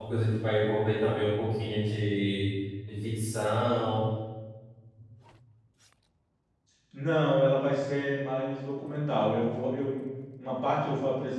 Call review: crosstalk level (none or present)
none